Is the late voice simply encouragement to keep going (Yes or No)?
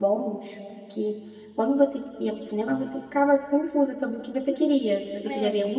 Yes